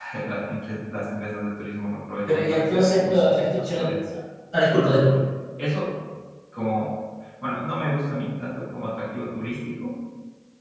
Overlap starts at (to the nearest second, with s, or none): 2 s